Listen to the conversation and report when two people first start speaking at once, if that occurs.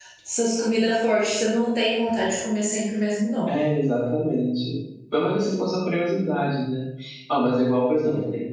none

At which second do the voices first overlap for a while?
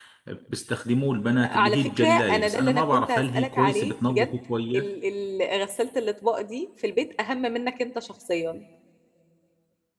1.2 s

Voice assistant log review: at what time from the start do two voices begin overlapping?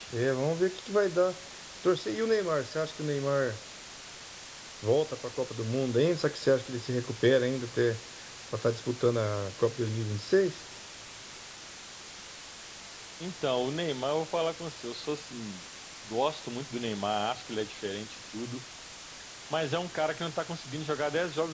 none

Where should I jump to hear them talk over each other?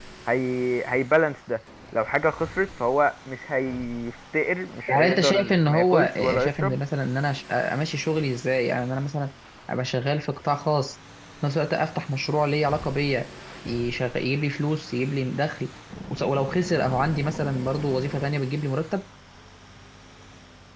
4.9 s

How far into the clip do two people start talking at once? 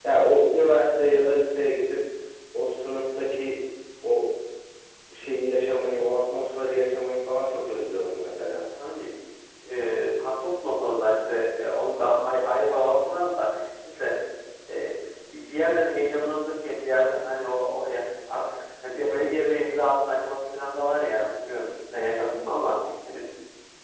none

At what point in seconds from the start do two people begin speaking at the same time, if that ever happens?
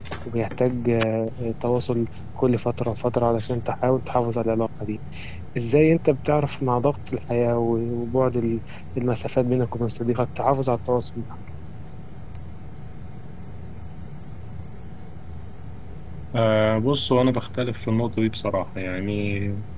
none

